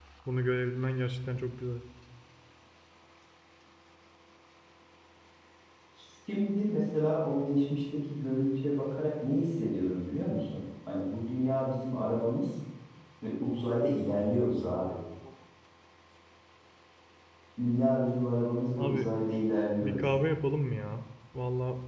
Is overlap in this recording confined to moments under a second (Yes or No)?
Yes